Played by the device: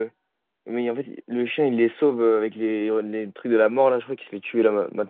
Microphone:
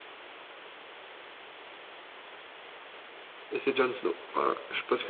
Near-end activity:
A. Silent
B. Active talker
B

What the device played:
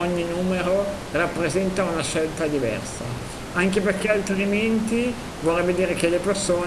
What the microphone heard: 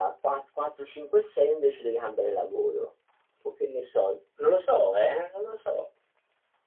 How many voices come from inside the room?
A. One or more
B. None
A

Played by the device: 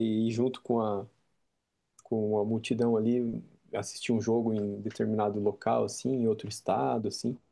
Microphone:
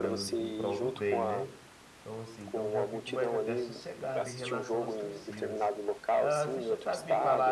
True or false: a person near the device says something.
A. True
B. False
A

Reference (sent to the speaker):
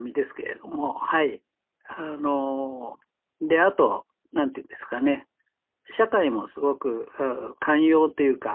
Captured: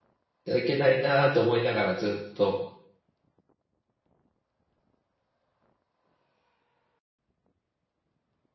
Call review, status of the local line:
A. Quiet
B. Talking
B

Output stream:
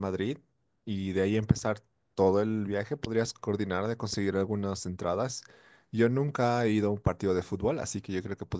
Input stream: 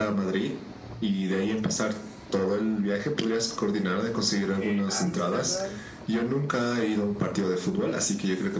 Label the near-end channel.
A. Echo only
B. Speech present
B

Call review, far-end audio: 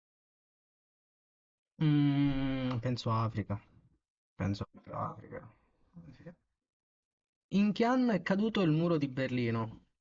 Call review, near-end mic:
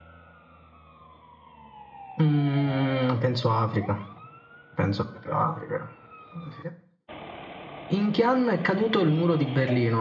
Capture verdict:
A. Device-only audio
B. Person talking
A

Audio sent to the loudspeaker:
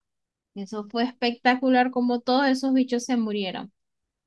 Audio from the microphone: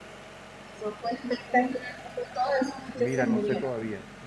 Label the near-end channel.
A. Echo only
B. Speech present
B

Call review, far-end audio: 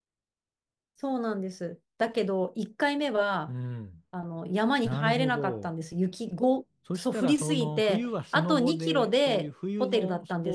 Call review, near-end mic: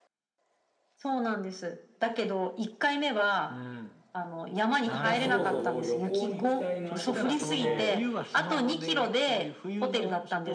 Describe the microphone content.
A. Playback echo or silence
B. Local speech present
B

